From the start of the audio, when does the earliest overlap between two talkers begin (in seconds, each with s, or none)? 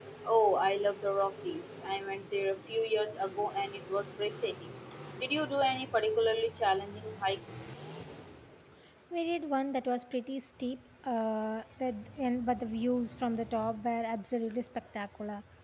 none